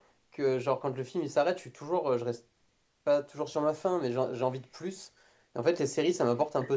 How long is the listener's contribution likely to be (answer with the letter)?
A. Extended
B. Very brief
B